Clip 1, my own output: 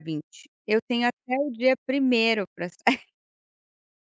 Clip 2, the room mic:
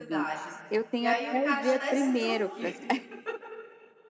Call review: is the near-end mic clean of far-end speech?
No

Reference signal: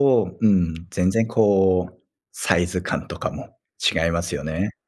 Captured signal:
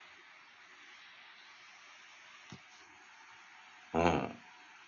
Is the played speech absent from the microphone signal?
Yes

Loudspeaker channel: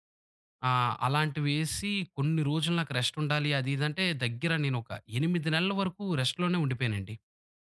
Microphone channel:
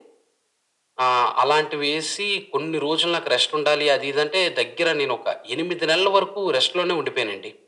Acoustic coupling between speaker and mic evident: Yes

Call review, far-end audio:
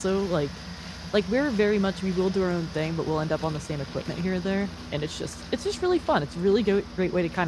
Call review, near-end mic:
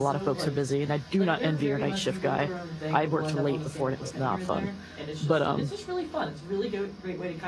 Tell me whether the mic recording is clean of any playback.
No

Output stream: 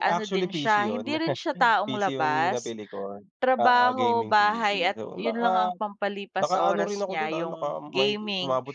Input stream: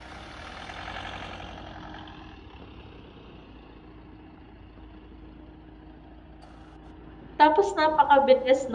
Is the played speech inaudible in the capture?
Yes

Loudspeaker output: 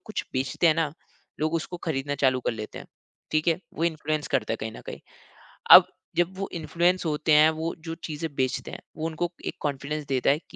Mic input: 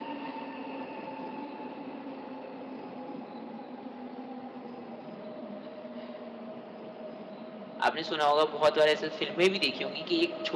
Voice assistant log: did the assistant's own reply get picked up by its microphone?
No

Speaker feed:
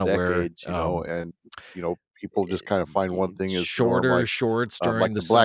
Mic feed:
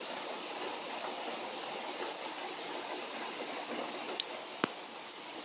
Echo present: No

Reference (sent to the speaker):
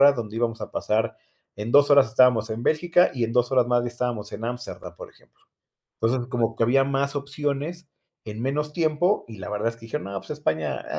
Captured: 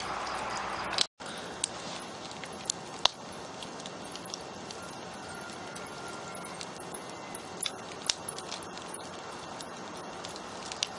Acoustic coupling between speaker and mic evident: No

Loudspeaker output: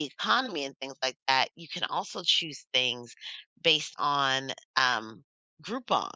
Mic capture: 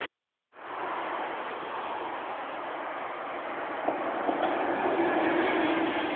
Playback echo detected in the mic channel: No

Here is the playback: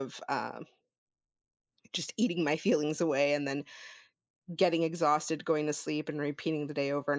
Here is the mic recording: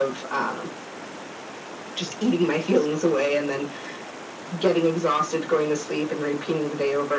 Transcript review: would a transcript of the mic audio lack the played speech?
No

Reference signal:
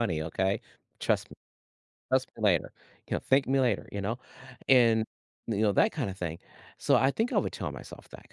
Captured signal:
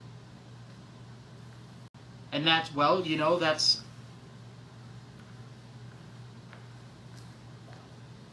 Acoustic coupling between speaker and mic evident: No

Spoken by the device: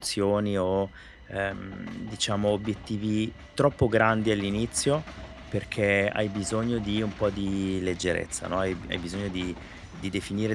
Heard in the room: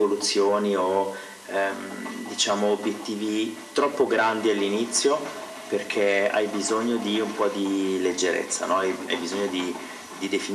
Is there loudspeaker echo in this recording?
Yes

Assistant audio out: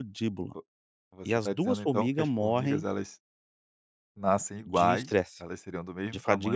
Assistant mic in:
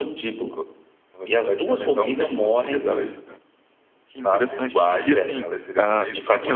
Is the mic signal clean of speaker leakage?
No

